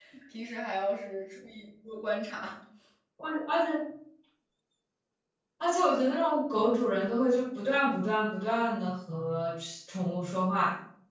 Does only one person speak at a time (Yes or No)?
Yes